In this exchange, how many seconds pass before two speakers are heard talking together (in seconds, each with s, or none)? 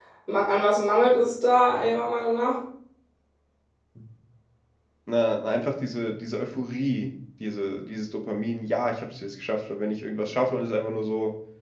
none